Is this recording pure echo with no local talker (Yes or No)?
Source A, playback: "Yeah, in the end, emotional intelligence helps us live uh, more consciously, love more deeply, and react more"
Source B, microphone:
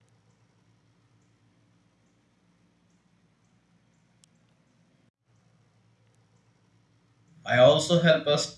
No